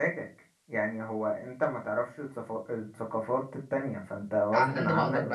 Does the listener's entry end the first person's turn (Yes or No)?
Yes